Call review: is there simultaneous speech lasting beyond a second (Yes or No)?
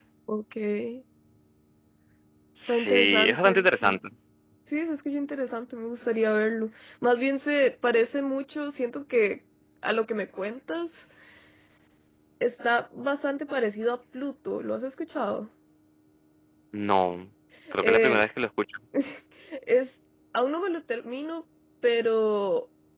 Yes